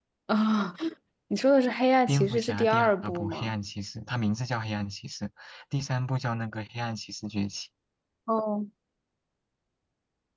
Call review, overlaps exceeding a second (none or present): present